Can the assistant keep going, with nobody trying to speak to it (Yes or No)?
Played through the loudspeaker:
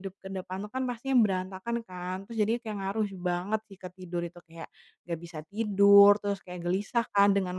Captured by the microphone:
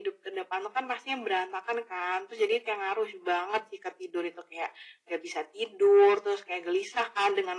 Yes